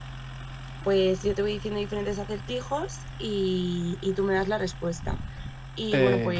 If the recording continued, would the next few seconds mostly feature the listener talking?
No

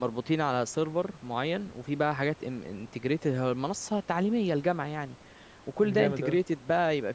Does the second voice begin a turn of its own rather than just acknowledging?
No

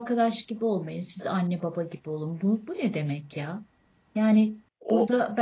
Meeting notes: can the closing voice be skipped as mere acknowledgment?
Yes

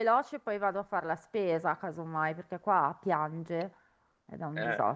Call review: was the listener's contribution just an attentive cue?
No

